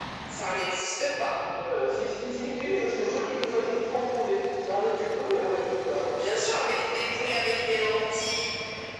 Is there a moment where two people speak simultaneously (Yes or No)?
No